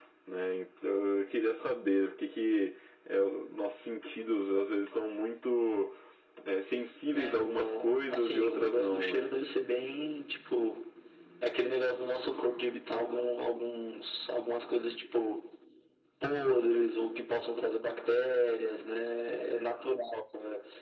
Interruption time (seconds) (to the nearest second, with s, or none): 7 s